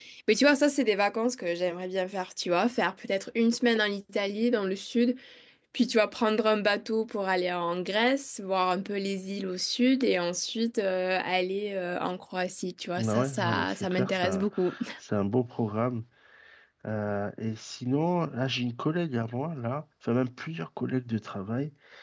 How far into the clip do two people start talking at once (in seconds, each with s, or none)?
13.0 s